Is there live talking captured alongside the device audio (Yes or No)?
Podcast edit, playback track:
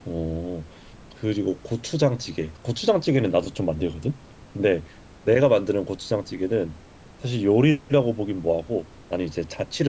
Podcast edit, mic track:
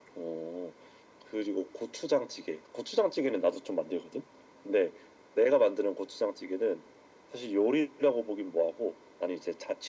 No